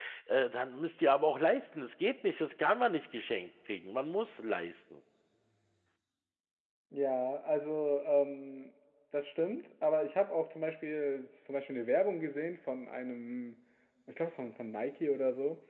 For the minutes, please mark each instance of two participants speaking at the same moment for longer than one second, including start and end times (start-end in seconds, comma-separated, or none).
none